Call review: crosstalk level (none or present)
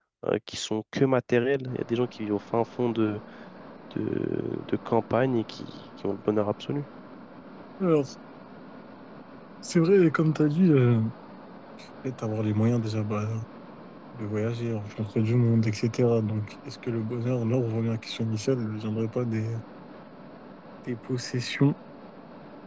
none